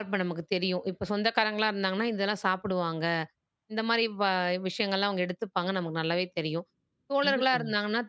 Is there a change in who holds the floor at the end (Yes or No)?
No